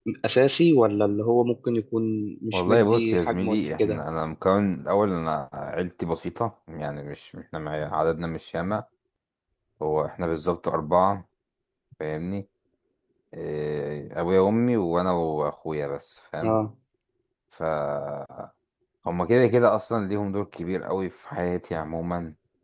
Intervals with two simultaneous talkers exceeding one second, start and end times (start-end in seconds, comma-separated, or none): 2.5-4.0